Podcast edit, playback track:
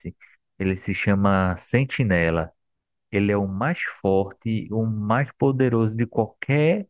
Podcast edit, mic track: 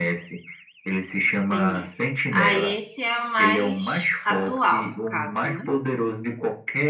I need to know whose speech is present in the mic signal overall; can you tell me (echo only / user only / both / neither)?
both